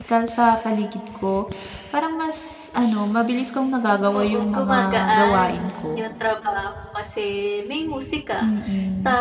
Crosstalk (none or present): present